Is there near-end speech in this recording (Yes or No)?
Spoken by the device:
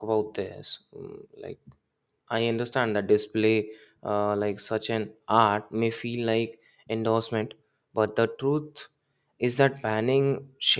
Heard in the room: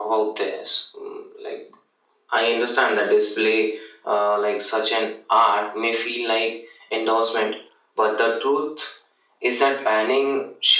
No